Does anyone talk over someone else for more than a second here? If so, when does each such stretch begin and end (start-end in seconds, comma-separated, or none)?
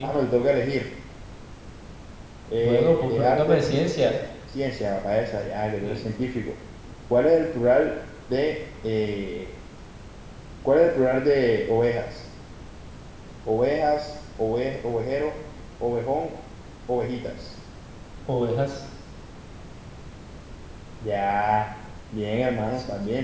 2.6-3.9